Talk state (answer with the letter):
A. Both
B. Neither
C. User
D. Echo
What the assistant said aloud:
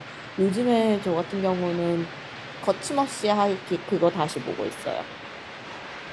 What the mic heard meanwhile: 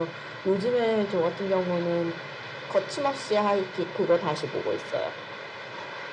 D